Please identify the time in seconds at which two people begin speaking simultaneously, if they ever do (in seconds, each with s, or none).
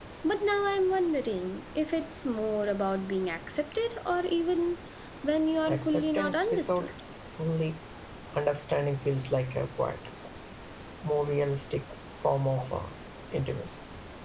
5.7 s